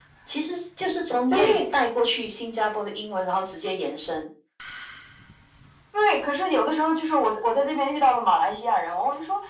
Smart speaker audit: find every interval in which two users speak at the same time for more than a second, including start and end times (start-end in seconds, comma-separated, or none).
none